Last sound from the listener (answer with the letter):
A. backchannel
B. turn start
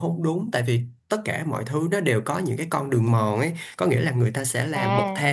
A